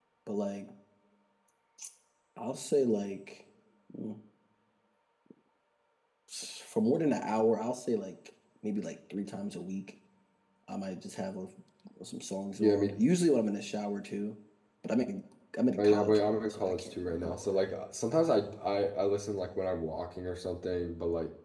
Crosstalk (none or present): present